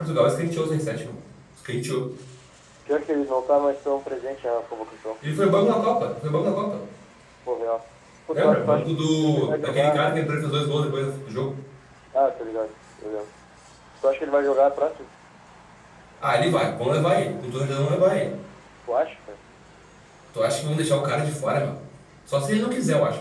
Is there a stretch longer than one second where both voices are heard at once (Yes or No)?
Yes